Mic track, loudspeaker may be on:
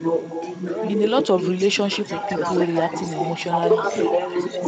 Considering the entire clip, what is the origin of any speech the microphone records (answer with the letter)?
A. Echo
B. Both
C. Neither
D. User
B